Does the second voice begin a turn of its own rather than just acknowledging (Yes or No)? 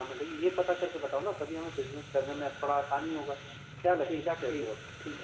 Yes